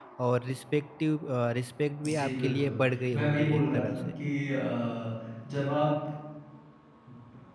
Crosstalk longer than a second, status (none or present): present